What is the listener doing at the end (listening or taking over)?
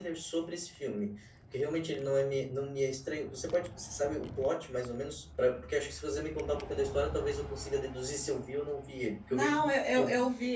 taking over